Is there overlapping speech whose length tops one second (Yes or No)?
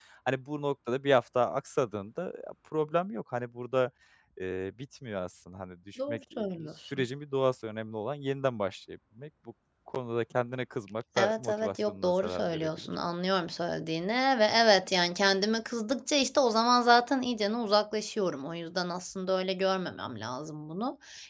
Yes